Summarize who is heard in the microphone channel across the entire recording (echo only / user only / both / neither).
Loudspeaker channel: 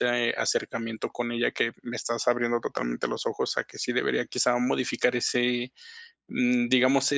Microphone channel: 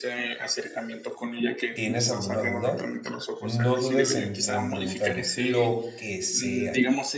both